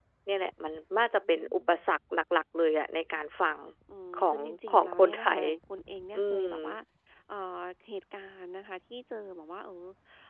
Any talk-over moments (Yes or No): Yes